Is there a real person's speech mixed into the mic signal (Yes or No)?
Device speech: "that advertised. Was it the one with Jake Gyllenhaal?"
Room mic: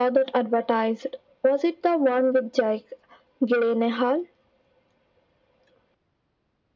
No